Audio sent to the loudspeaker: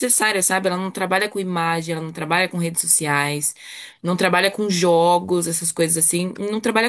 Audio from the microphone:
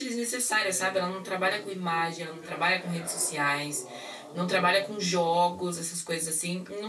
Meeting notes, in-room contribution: present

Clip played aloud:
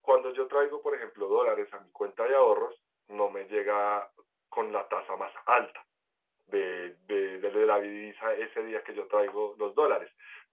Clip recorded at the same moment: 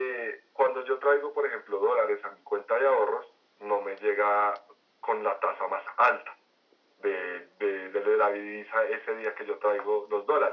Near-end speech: none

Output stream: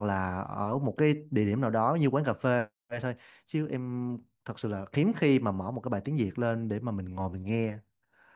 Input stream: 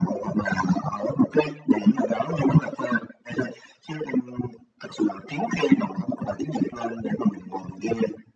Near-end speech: none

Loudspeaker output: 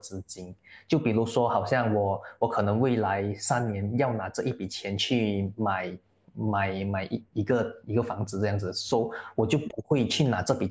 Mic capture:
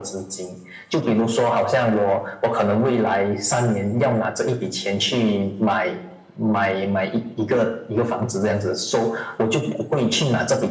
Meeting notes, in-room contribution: none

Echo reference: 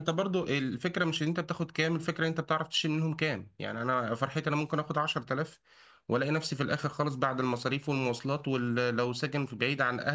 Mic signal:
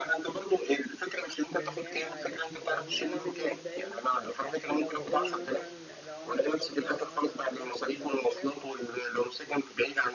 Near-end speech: present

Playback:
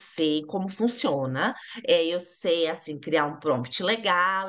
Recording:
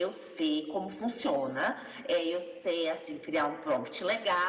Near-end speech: none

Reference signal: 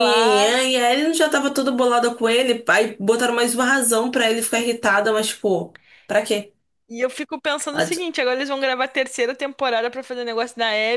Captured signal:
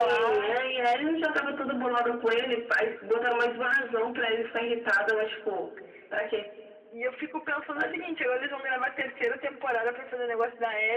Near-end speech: none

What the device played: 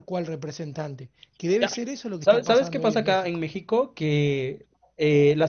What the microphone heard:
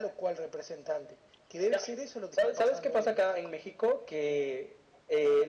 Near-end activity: none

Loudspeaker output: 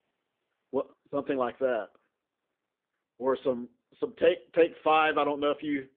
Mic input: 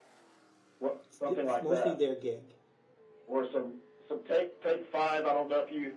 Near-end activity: present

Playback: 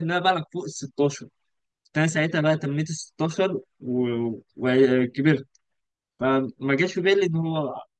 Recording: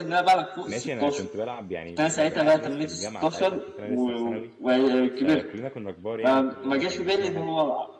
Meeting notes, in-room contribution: present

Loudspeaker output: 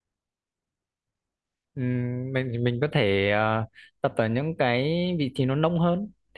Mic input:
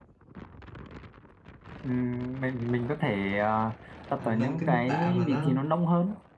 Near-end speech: present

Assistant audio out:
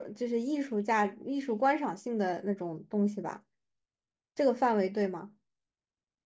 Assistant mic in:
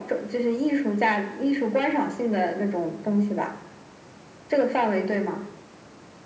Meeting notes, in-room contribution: none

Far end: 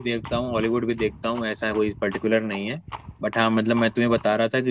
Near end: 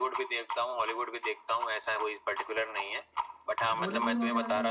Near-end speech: present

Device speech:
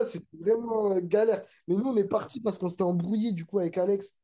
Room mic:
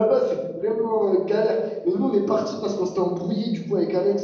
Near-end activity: none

